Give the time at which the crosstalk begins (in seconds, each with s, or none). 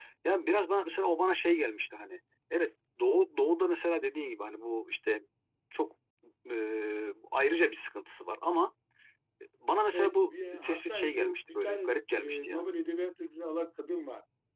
9.9 s